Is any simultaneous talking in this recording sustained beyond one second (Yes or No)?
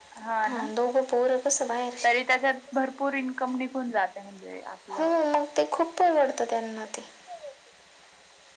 No